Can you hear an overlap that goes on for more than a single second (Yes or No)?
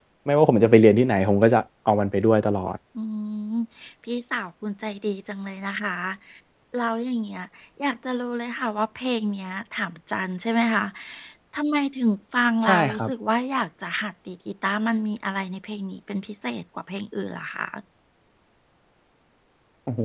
No